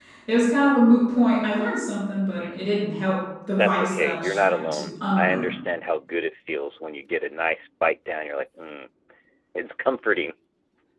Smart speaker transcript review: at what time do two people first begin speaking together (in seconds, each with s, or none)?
3.6 s